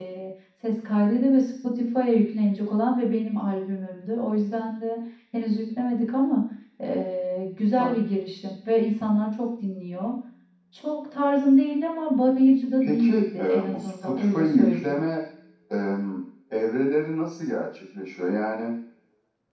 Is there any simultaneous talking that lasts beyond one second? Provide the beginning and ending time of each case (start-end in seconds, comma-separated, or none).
12.8-15.0